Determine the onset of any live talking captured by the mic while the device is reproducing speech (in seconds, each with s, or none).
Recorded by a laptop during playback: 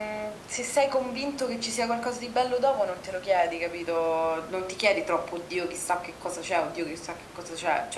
none